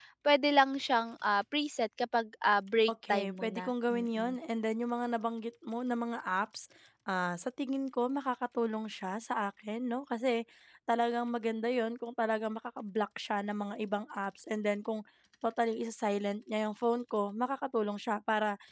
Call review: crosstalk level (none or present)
present